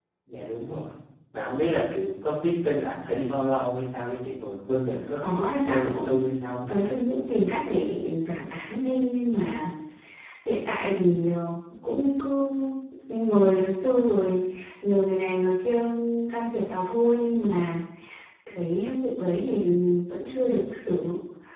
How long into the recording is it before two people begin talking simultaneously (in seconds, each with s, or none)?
5.2 s